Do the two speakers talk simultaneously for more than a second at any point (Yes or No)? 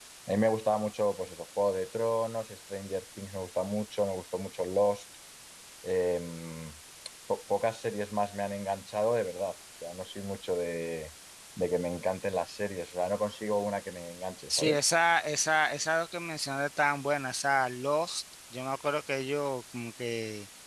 No